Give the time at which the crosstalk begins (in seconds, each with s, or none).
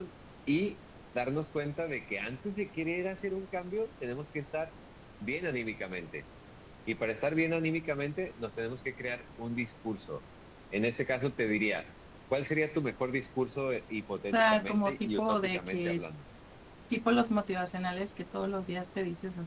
14.3 s